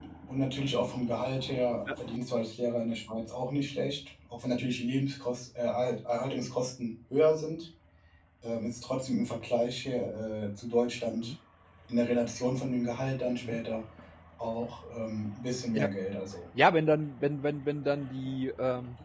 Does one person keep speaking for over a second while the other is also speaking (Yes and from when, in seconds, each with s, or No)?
No